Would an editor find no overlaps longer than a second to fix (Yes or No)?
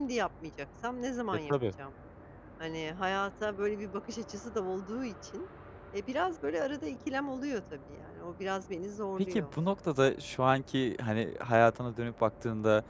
Yes